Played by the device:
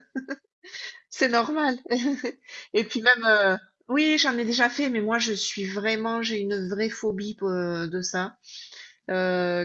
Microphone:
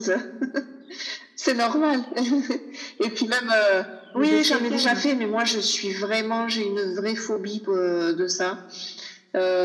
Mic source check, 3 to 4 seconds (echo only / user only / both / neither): echo only